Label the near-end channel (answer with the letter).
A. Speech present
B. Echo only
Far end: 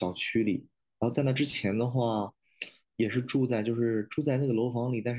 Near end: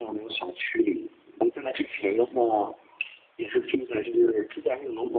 B